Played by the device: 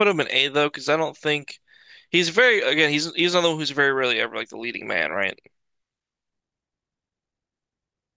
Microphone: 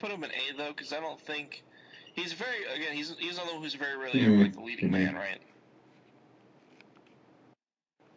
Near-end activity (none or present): present